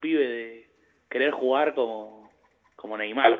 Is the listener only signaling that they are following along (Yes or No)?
No